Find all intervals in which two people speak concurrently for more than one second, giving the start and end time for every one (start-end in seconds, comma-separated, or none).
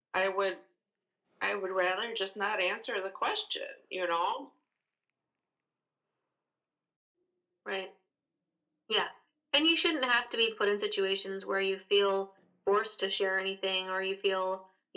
none